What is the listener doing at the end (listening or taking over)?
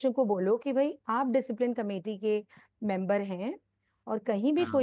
listening